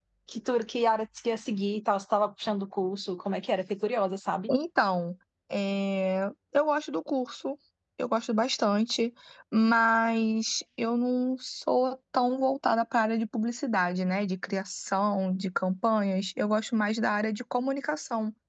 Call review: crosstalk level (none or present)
none